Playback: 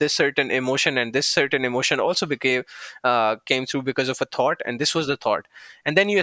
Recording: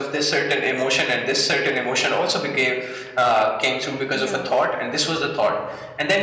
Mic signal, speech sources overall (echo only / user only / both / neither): both